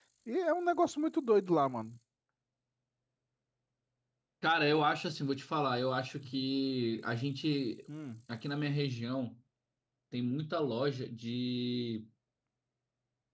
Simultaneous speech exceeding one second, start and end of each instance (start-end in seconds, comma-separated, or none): none